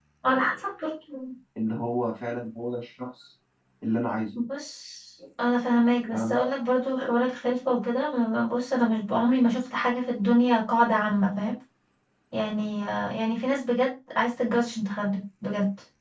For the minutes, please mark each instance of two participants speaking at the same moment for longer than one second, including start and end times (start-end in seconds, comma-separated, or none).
none